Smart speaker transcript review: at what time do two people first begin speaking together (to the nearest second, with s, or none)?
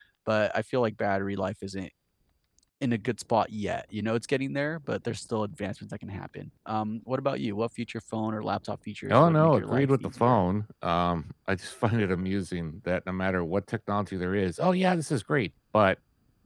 9 s